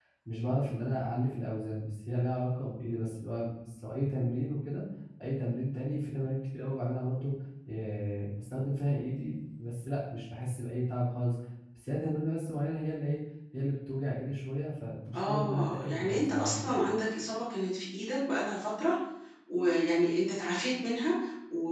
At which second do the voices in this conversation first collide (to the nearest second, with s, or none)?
15 s